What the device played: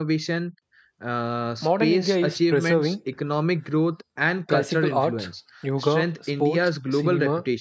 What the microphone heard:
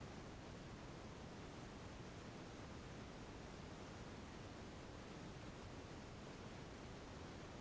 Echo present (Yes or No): No